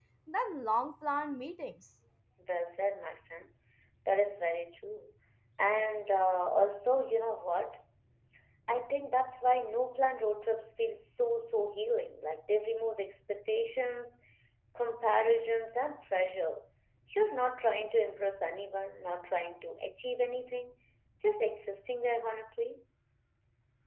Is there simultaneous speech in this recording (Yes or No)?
No